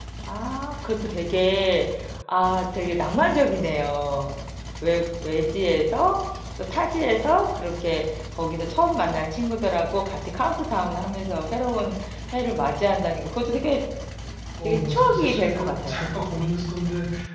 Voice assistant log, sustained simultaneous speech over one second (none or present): present